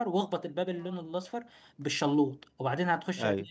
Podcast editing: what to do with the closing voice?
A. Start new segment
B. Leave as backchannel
B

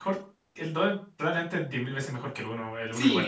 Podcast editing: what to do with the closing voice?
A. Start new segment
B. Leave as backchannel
A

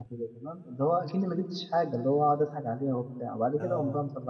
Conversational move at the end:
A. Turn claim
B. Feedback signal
B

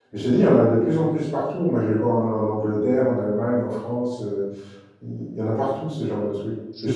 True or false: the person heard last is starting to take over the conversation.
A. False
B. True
A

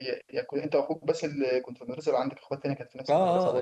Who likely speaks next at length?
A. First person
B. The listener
B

